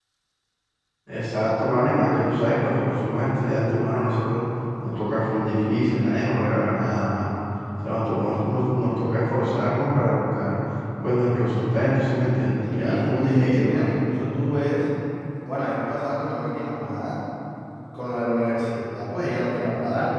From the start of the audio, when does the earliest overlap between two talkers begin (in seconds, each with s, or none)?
12.7 s